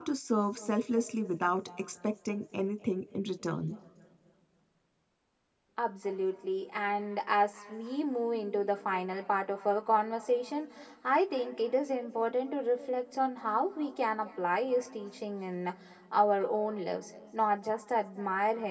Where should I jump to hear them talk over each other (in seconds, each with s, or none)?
none